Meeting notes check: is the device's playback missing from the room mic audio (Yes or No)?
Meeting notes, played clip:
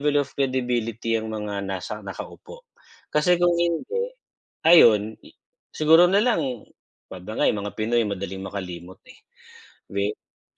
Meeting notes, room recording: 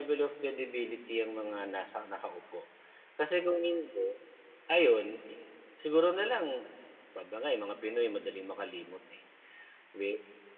No